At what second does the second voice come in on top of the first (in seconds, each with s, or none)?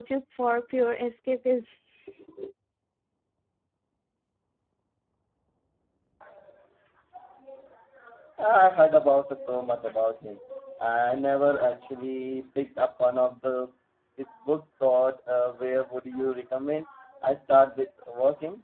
none